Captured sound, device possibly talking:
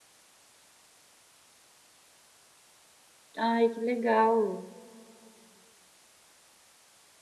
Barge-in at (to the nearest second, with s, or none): 3 s